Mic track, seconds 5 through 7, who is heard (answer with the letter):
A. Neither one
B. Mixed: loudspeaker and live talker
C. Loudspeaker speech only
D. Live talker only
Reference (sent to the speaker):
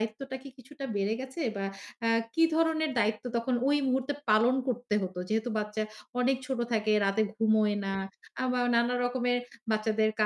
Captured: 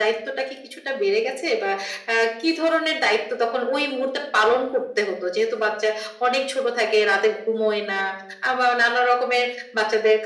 C